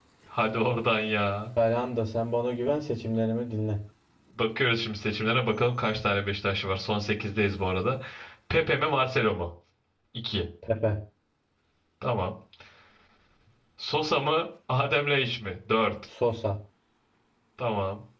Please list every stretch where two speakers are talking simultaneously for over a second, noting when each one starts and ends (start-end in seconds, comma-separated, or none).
none